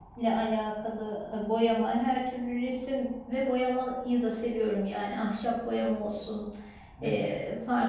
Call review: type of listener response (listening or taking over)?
listening